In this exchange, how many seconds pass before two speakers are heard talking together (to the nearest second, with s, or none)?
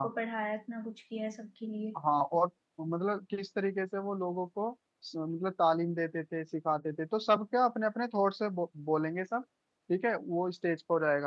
none